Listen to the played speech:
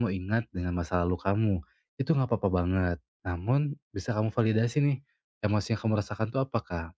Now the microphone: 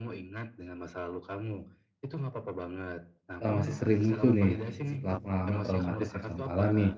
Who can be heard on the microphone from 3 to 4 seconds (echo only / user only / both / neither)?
both